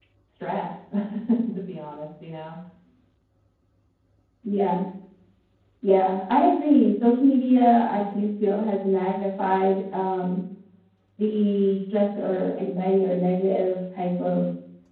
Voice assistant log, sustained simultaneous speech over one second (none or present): none